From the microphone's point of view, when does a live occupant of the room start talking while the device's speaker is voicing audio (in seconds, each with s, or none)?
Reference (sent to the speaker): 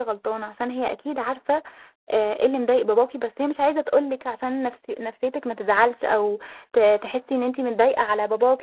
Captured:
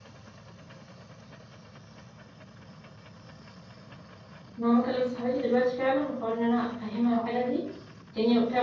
4.6 s